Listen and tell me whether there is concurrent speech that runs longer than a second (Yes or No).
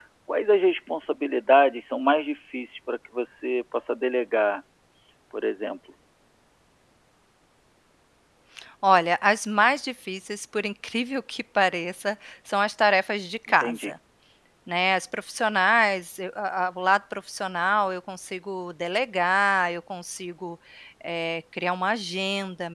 No